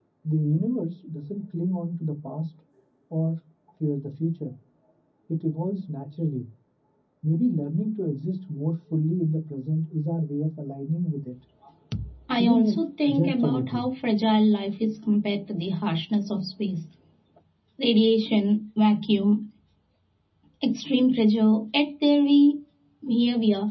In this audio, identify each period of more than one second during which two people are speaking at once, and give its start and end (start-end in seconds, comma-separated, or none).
12.4-13.8